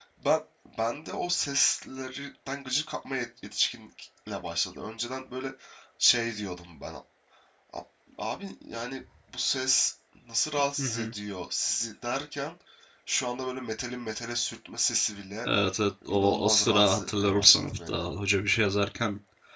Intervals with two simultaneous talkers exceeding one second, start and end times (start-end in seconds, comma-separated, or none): 16.1-18.0